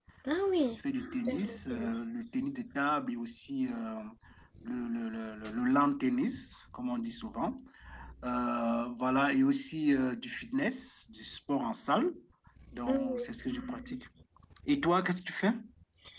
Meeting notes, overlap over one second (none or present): present